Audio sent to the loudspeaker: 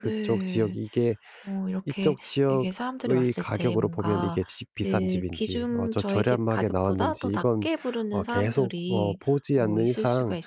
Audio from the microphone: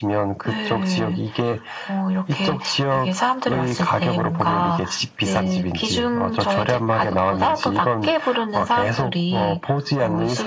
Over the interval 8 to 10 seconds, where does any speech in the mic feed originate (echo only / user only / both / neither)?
echo only